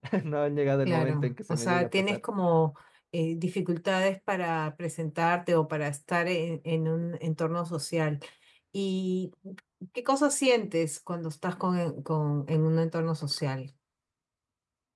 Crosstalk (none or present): present